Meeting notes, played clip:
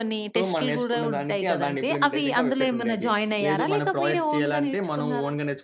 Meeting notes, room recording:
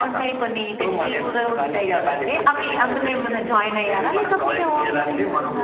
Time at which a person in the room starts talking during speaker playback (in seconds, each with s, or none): none